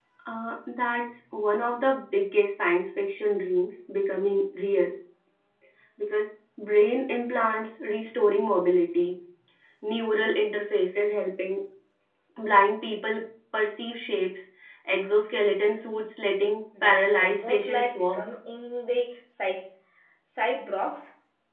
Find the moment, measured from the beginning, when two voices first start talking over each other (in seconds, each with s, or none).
16.7 s